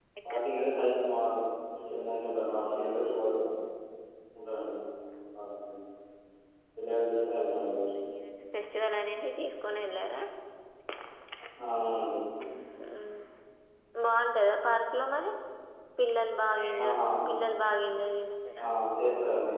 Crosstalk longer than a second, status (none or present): none